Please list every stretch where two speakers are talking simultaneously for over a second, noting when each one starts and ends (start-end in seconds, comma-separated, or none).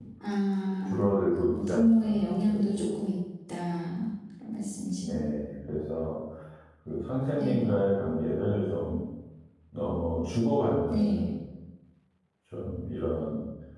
1.4-2.9